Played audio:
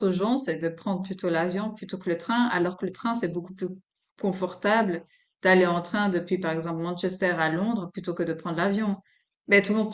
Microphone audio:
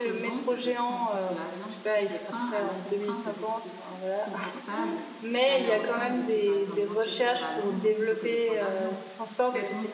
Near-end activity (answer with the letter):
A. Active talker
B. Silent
A